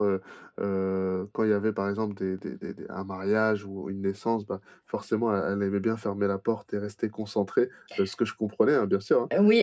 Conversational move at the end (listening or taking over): taking over